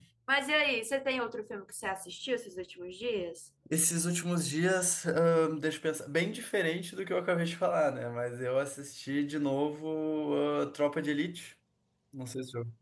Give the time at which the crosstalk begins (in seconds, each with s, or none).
none